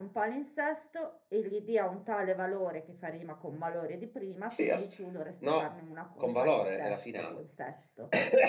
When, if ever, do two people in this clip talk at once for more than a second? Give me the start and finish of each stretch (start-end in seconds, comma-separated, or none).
6.2-7.4